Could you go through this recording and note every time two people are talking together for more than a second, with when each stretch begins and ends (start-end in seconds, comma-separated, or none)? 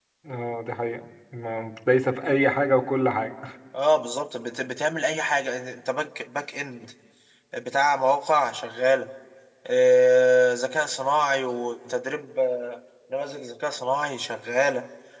none